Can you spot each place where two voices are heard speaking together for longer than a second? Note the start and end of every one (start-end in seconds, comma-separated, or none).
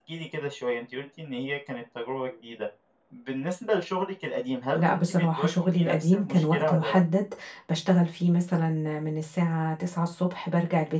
4.8-7.0